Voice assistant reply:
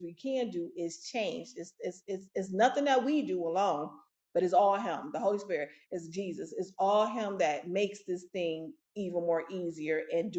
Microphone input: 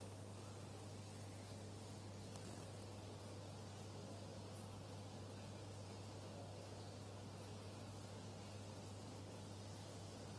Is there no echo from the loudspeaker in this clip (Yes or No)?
Yes